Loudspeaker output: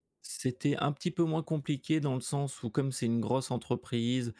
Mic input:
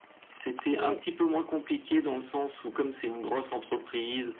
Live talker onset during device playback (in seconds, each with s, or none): 0.8 s